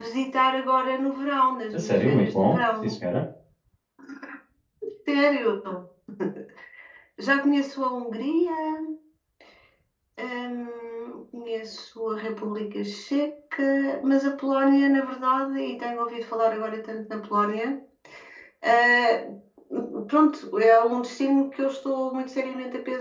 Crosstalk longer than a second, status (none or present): present